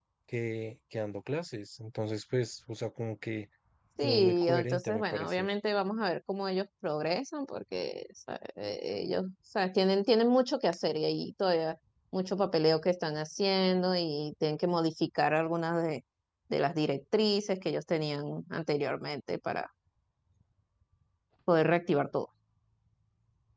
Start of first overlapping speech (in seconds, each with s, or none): 4.0 s